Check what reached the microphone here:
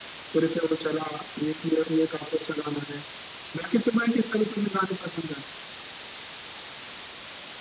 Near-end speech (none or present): none